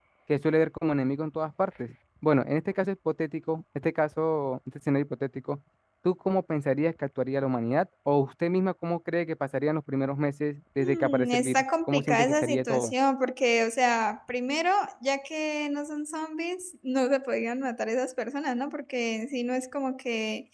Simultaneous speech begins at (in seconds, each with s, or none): 10.8 s